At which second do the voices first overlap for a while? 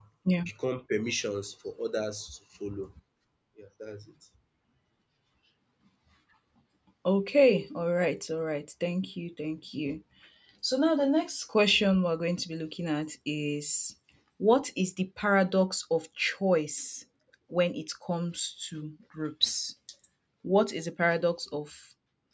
none

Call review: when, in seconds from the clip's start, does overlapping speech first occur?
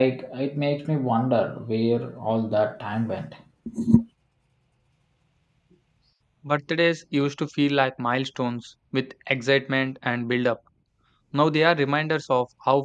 none

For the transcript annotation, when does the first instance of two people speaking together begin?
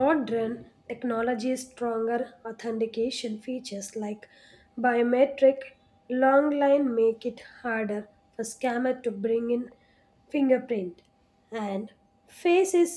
none

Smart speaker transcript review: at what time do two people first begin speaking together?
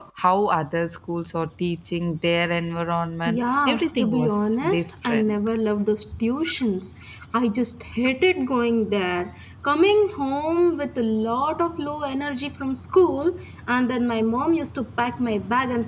3.2 s

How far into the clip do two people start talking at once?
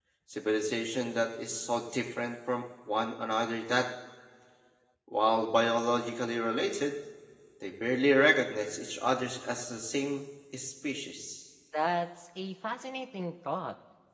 none

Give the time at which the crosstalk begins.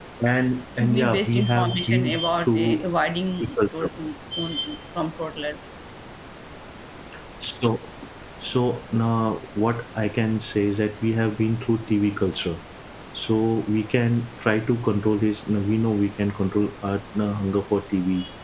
0.8 s

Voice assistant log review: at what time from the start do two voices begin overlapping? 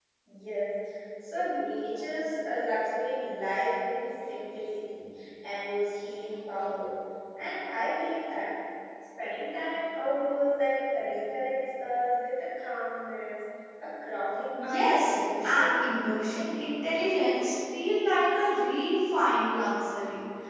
14.6 s

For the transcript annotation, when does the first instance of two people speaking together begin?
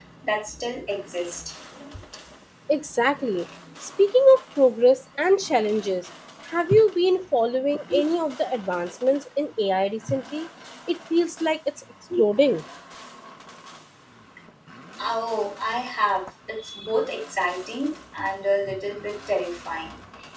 none

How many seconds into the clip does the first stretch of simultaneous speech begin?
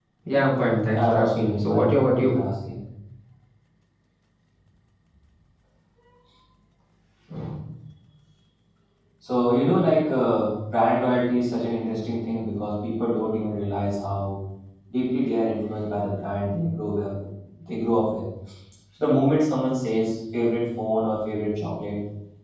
1.0 s

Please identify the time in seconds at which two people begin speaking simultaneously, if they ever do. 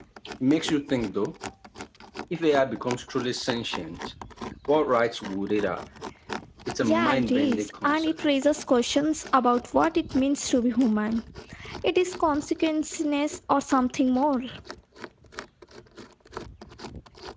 6.8 s

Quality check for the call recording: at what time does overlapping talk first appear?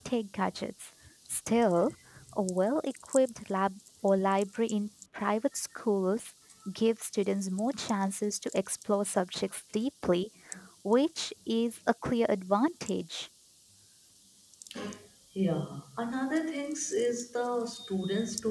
none

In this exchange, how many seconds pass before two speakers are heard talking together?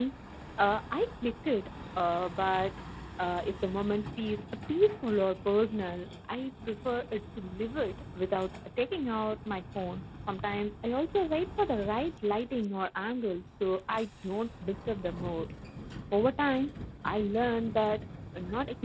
none

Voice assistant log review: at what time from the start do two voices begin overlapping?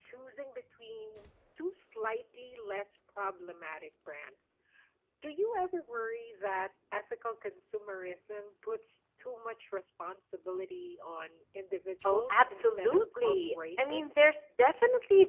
12.0 s

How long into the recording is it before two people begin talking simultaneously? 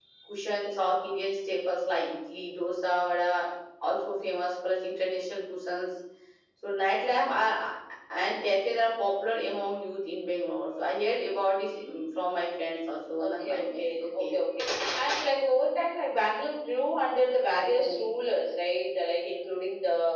13.2 s

